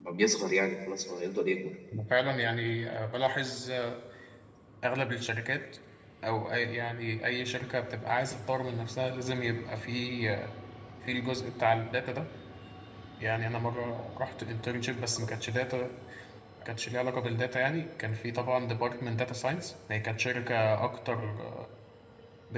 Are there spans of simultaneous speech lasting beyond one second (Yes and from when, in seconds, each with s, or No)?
No